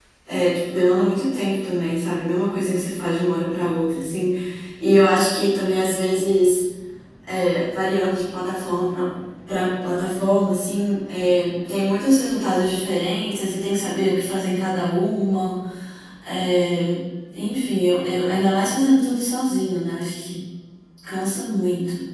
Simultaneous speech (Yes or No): No